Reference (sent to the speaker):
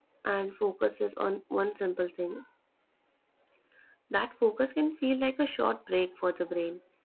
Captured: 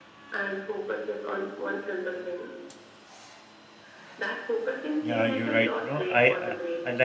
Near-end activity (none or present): present